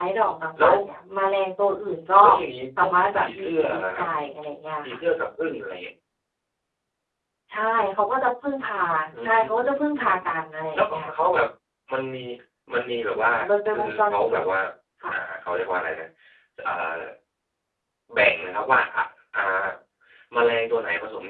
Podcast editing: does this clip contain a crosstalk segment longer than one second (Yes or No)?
Yes